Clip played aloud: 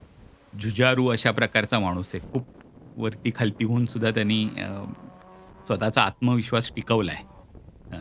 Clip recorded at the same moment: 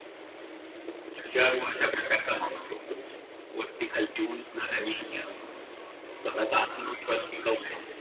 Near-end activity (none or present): none